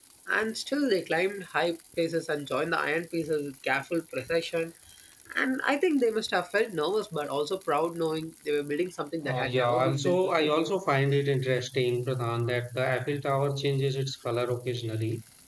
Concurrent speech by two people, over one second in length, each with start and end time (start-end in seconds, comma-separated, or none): 9.2-10.5